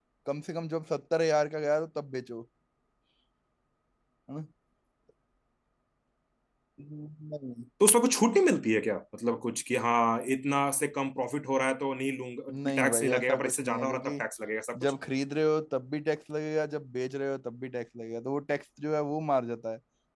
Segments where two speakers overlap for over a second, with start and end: 12.5-14.2

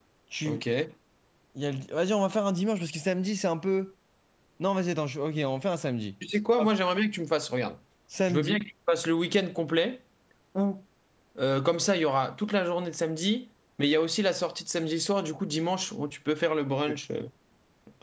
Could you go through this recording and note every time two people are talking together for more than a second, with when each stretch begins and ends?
none

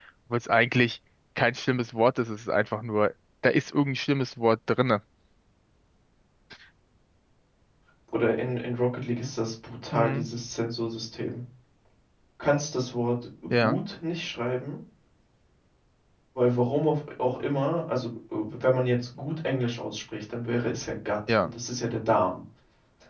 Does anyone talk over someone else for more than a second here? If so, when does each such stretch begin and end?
none

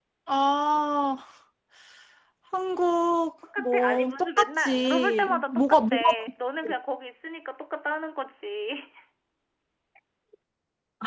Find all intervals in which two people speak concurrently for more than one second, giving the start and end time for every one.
3.6-6.1

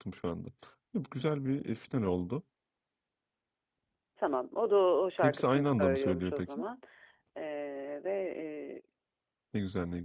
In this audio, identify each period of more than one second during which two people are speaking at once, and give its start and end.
5.2-6.6

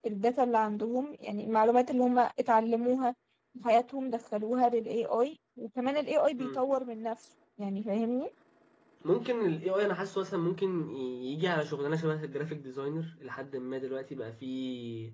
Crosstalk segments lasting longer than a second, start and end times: none

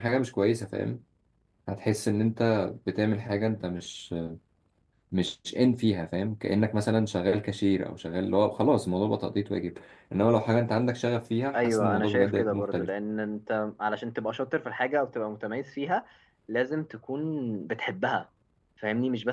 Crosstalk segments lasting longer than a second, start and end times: 11.5-12.9

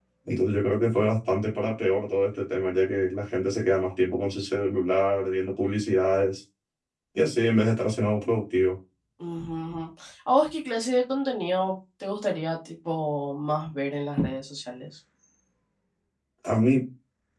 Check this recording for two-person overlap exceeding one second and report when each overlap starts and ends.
none

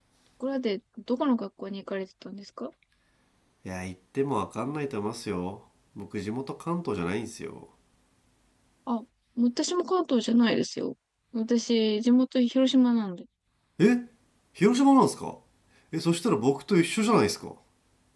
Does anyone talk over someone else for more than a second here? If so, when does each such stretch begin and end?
none

